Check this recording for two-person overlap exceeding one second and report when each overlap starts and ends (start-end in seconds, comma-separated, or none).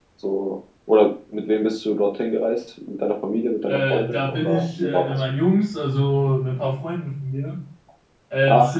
3.7-5.1